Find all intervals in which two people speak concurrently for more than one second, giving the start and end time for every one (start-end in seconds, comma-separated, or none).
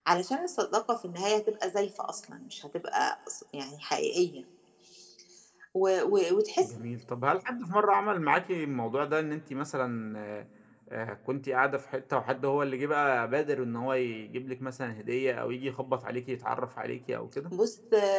none